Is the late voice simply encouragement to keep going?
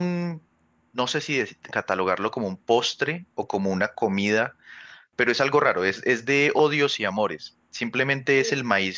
Yes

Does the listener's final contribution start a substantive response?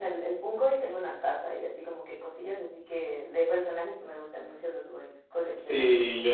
Yes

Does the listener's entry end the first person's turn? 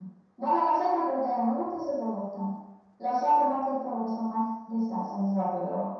Yes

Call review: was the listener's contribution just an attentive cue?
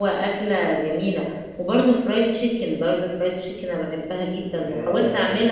No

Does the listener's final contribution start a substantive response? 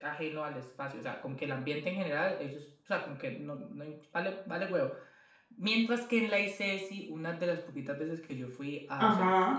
No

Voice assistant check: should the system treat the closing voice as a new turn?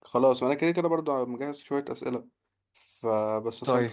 No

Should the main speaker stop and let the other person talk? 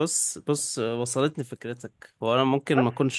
No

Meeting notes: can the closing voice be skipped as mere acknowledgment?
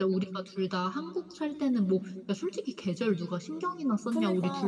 No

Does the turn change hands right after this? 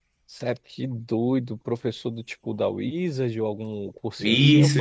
Yes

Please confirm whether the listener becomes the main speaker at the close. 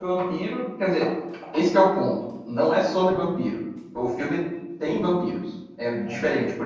No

